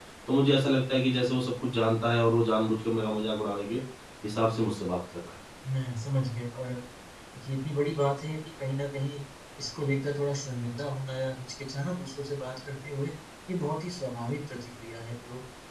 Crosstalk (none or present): none